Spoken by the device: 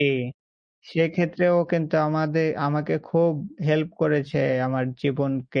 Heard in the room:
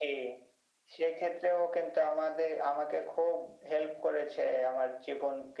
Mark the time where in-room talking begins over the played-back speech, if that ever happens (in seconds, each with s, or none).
none